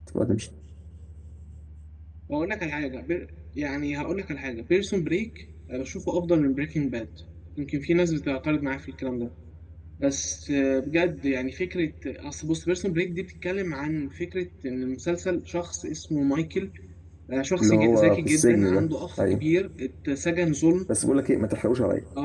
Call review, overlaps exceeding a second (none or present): present